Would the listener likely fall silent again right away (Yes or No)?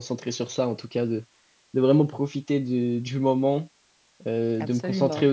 Yes